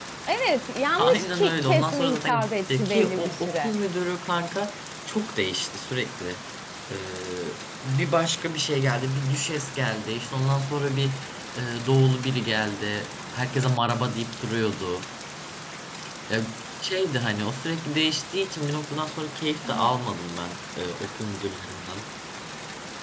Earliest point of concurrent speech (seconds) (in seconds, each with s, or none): 1.0 s